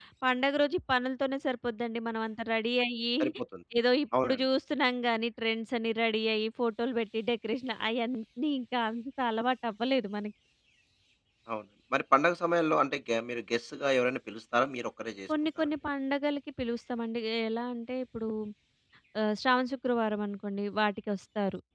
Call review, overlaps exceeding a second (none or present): none